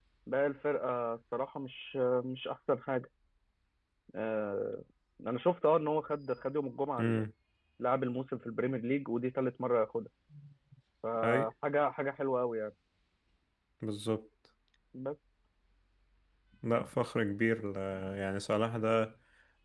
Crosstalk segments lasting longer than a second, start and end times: none

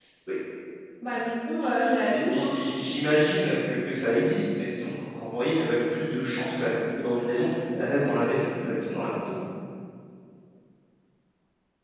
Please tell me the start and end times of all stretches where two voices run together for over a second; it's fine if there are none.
none

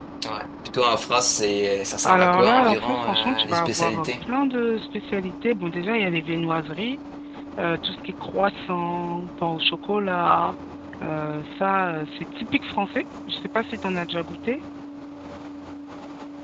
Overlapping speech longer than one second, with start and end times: 2.0-4.1

